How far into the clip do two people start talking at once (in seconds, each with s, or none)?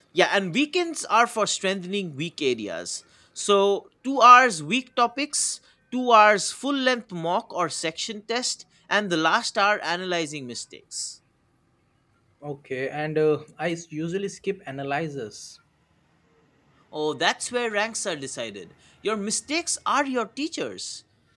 none